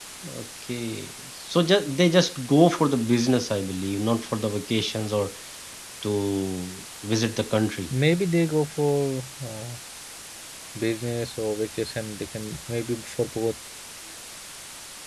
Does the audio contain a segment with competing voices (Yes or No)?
No